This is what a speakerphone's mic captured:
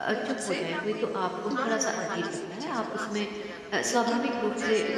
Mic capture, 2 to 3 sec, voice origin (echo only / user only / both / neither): both